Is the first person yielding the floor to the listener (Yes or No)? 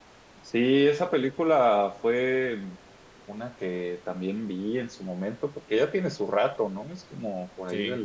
No